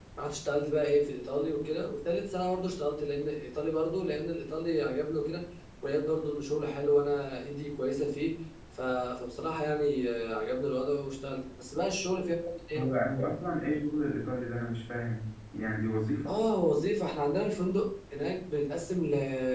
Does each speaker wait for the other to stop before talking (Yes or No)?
Yes